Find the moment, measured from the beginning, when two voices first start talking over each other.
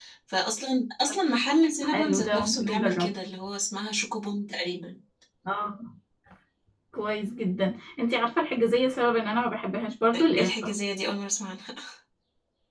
1.9 s

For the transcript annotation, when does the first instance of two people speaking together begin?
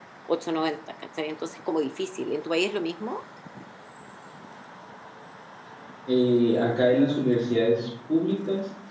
none

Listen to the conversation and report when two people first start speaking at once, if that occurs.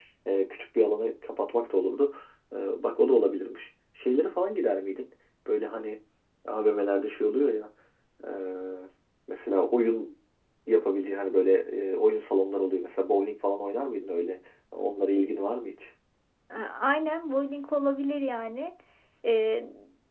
none

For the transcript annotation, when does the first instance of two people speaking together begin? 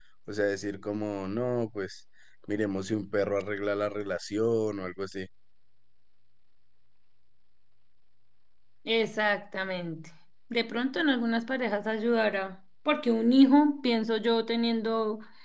none

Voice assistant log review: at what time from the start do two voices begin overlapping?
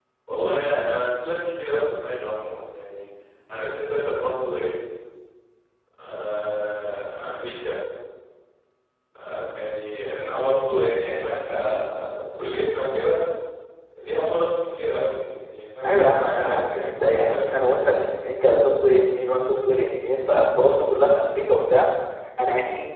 15.8 s

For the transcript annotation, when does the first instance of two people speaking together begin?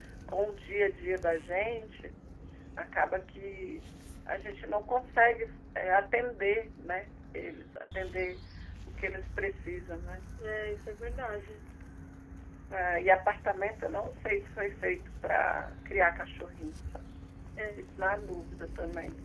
none

